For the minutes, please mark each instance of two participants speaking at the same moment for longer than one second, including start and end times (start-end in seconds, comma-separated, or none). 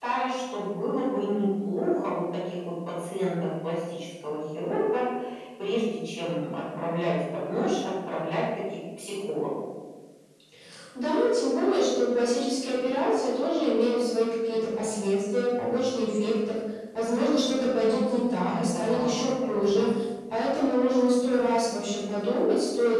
18.5-19.9